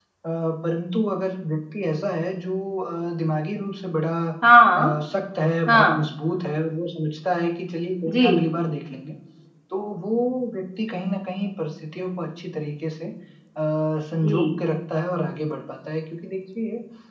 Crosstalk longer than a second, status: none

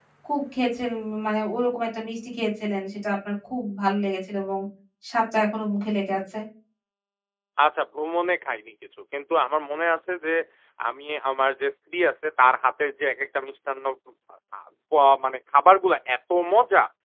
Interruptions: none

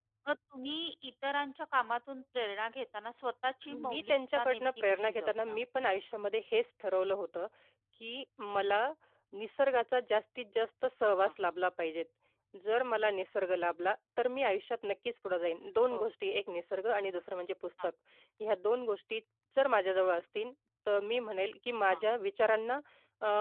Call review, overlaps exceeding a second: present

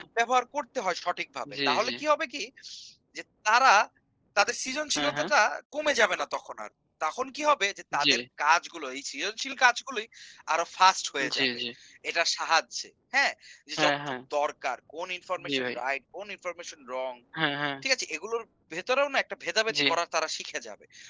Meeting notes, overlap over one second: none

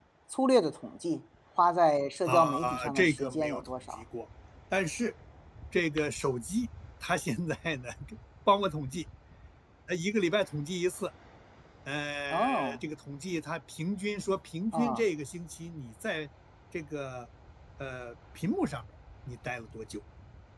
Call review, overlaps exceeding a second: present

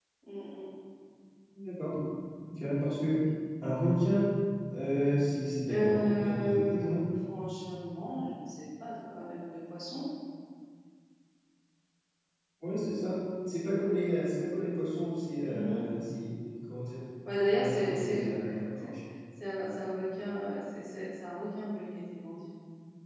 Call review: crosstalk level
present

